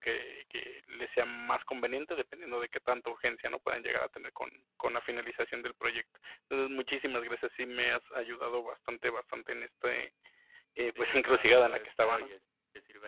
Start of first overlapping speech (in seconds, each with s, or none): 11.0 s